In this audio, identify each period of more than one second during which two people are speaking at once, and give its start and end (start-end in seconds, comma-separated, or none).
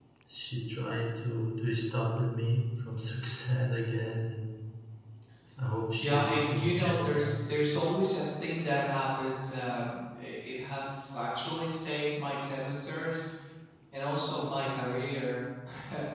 6.0-7.3